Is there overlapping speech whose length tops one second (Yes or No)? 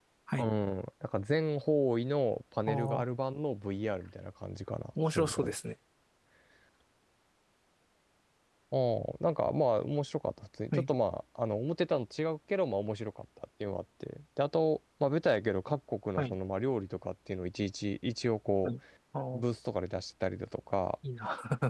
No